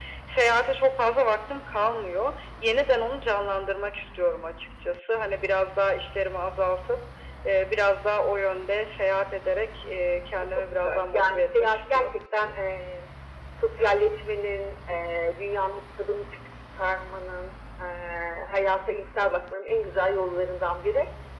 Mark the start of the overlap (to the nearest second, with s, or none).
11 s